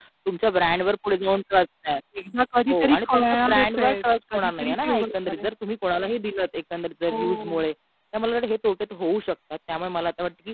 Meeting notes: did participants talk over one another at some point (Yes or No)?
Yes